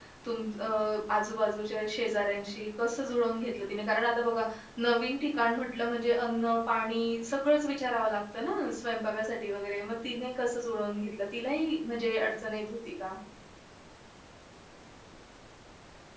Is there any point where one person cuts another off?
No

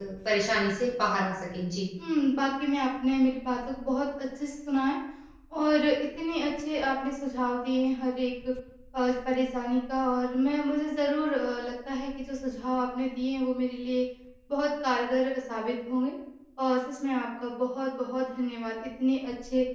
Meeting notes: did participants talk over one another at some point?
No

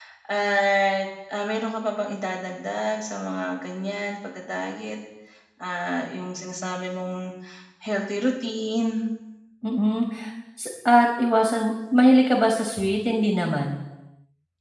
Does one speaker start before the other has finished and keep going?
No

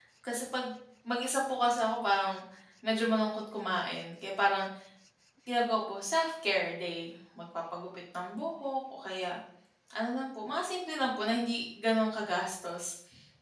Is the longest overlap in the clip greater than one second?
No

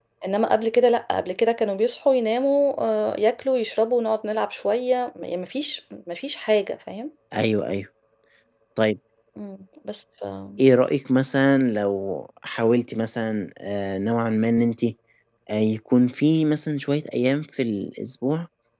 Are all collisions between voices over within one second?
Yes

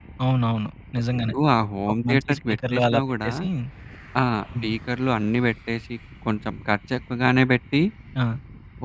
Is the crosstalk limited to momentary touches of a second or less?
No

